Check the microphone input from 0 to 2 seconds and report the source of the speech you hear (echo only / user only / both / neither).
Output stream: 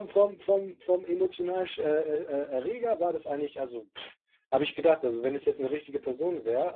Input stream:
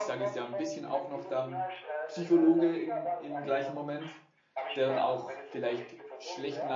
both